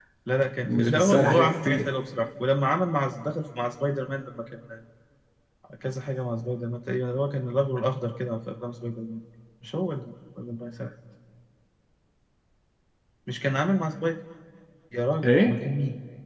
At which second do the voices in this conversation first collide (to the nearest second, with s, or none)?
1 s